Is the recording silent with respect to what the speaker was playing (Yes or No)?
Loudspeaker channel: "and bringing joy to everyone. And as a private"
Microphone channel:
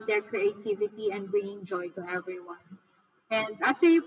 No